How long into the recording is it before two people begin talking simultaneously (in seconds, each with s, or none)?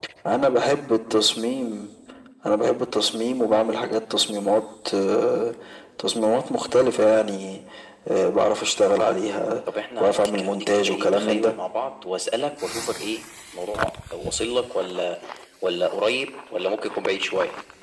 10.0 s